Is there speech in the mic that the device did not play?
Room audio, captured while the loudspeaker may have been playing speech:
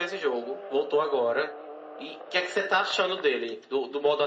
No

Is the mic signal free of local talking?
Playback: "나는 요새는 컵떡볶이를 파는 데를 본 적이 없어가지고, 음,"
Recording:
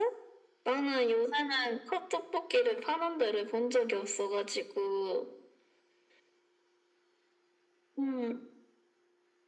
Yes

